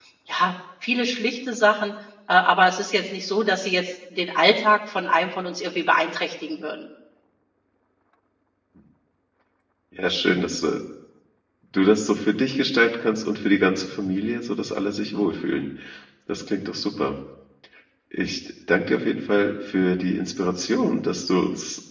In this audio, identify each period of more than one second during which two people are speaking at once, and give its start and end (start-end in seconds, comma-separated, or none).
none